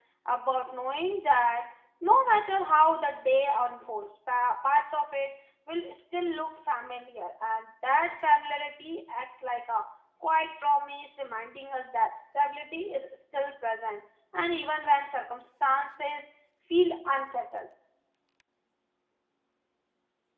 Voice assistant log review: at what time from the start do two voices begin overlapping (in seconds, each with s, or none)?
none